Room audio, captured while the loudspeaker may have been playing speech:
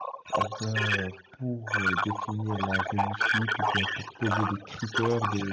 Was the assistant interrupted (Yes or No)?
Yes